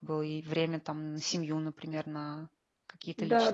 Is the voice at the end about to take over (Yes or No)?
Yes